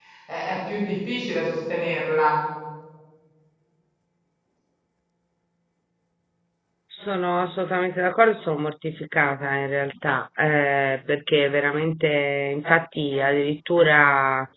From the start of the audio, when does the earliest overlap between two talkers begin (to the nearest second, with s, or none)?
none